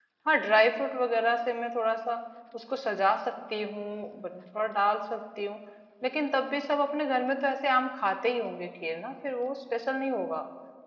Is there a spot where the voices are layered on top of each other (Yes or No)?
No